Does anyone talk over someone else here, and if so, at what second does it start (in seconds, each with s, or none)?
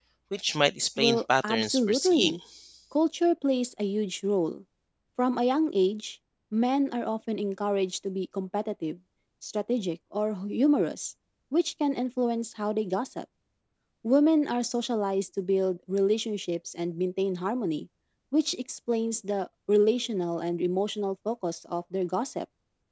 1.0 s